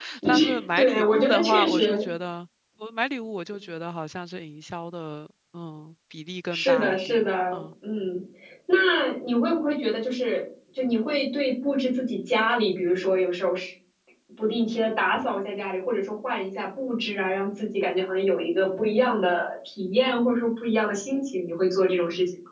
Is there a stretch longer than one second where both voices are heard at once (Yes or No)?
Yes